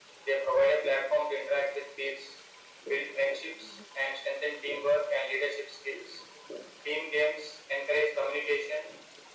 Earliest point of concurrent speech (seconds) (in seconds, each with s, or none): none